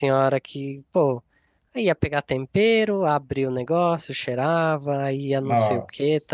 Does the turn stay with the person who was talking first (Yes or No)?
Yes